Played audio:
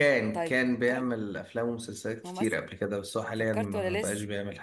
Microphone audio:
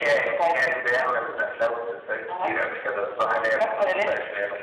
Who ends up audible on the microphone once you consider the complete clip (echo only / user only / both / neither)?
echo only